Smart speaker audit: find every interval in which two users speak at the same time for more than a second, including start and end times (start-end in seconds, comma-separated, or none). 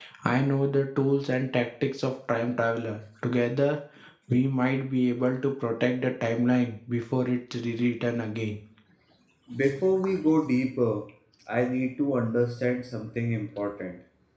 none